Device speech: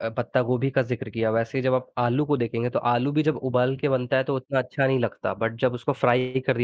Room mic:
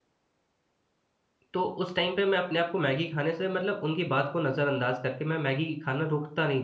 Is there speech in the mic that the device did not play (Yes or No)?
Yes